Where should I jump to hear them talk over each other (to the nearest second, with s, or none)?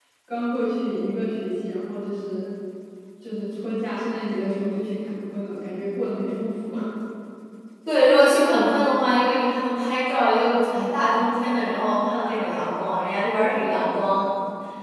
none